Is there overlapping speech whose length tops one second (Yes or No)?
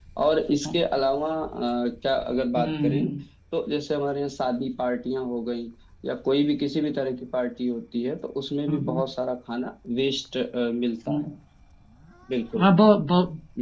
No